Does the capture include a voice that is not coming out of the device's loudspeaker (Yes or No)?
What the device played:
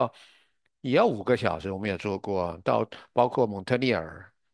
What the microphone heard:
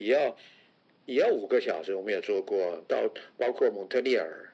No